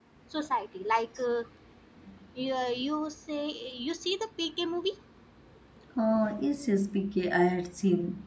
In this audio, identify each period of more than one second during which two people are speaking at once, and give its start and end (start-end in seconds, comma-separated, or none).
none